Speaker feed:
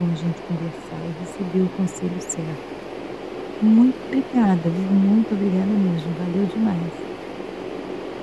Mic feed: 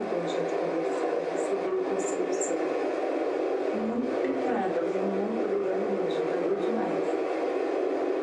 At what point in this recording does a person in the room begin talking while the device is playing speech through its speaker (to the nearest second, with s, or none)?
none